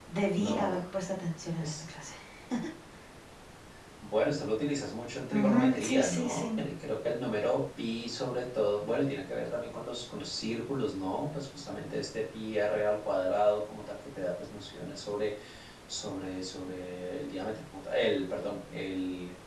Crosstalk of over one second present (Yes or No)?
Yes